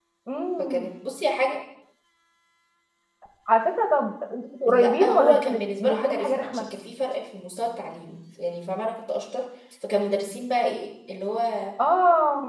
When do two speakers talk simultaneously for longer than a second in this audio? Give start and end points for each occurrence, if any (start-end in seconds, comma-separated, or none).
4.7-6.6